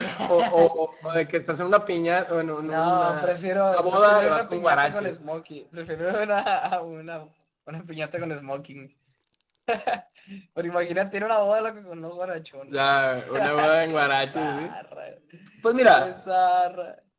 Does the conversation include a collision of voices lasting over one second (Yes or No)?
Yes